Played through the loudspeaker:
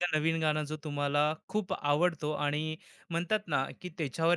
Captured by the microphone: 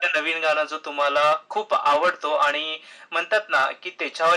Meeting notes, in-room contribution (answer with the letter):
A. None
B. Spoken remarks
A